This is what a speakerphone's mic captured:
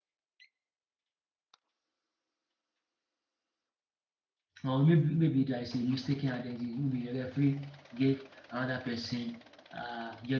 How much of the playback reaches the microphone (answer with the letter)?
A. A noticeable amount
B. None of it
B